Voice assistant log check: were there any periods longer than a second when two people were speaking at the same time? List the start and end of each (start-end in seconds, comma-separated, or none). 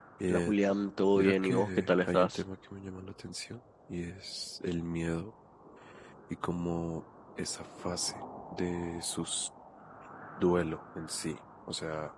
1.2-2.4